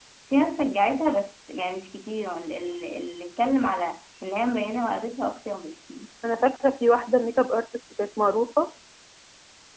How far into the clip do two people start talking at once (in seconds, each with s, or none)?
none